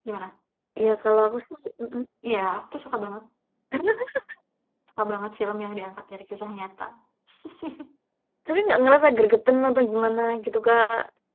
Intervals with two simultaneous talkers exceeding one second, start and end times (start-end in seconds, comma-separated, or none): none